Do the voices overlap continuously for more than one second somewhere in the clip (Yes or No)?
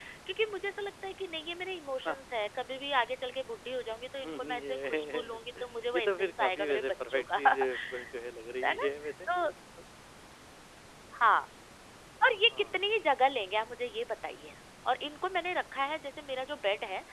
Yes